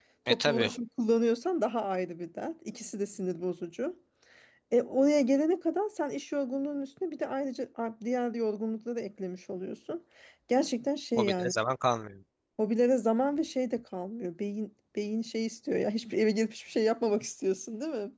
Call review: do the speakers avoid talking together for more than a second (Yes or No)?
Yes